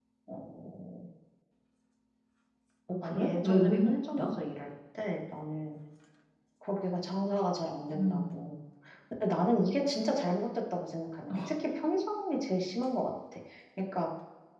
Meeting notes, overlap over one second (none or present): present